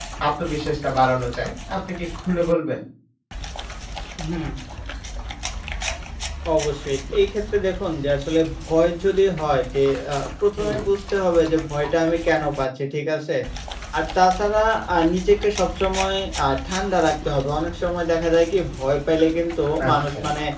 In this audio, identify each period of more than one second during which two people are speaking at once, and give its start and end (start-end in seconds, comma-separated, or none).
none